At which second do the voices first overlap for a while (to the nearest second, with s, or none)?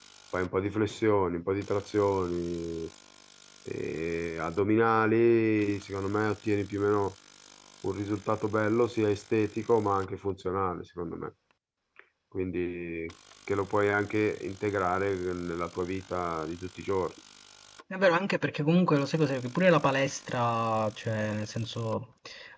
none